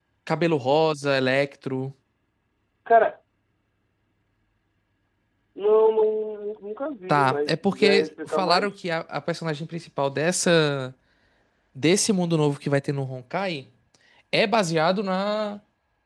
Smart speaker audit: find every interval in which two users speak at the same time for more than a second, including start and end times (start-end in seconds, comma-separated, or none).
7.1-8.7